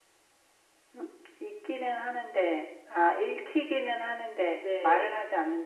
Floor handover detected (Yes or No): Yes